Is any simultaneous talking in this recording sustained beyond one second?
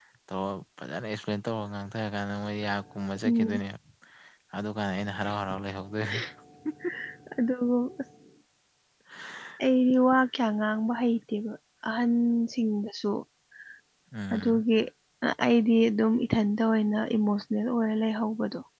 No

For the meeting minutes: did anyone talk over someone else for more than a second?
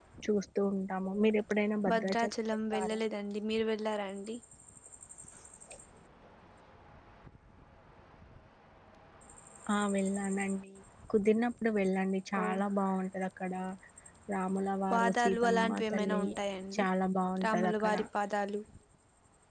Yes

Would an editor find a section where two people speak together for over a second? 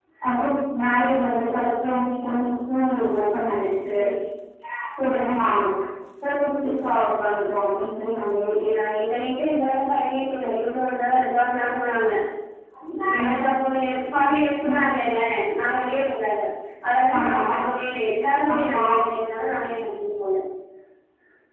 No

